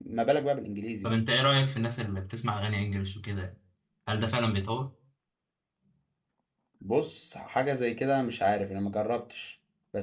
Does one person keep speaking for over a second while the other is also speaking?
No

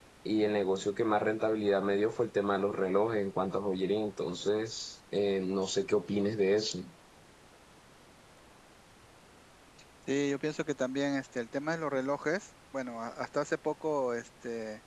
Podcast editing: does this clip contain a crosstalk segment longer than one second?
No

